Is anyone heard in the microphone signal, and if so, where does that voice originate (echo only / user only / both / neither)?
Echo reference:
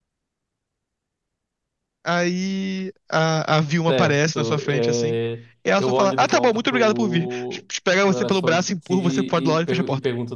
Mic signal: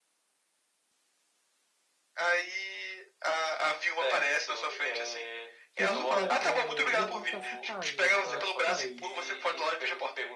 both